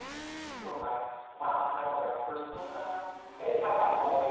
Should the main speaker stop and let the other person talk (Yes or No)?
No